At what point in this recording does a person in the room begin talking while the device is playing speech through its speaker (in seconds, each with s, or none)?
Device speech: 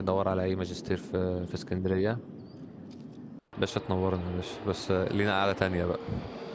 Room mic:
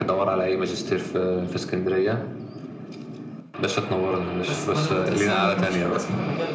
4.3 s